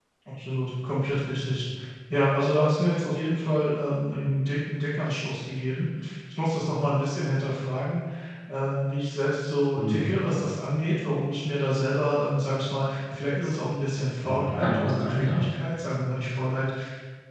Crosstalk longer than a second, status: present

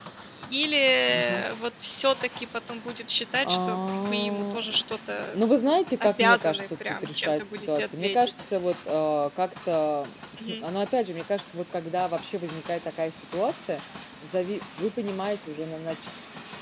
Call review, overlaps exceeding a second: present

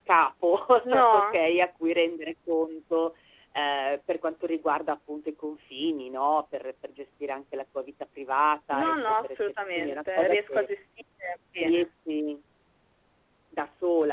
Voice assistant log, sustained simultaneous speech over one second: present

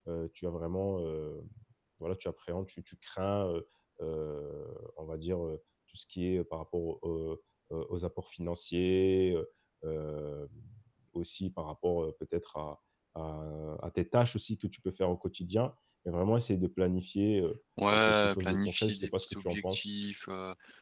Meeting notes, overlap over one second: present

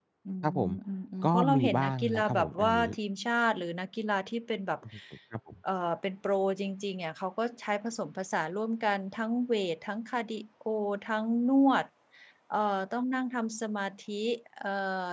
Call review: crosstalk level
present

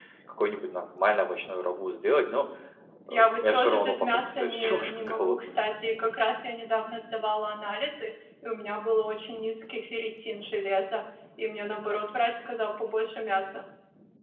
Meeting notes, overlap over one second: present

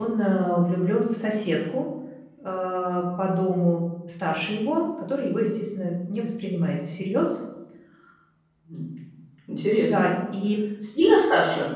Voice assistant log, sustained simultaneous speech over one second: none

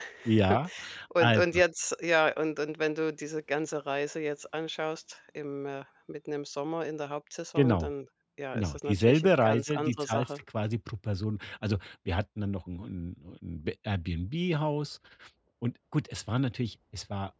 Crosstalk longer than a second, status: present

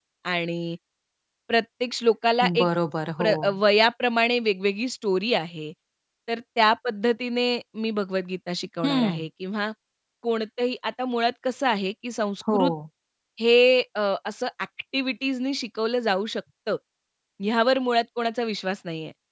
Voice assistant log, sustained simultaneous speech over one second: none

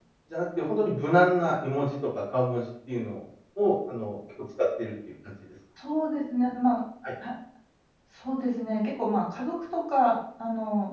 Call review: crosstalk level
none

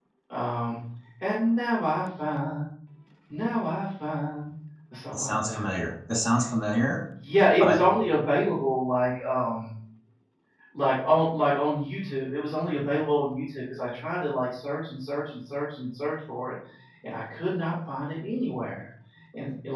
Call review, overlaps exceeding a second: none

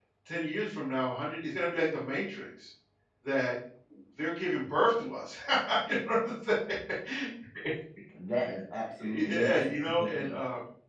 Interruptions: present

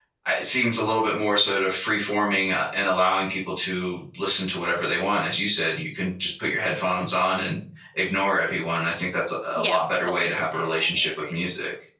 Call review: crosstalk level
present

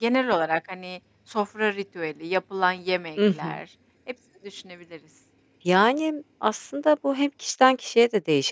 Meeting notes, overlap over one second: none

